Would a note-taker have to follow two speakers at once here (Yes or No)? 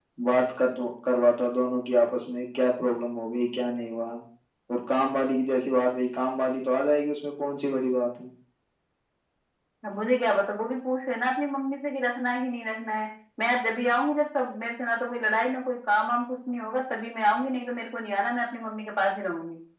No